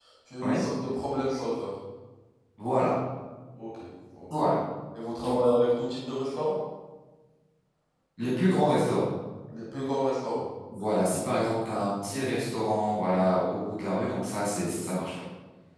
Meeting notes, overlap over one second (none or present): none